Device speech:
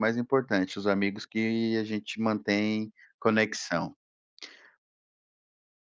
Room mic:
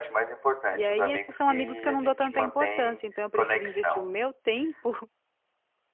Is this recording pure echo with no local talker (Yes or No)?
No